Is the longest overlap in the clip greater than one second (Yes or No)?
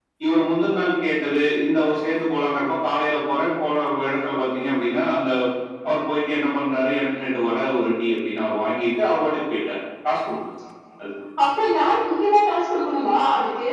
No